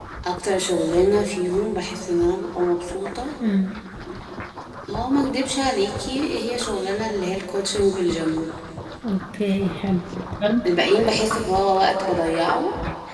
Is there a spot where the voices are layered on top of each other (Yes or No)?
No